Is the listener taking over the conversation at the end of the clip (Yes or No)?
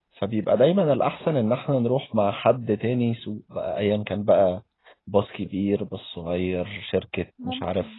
No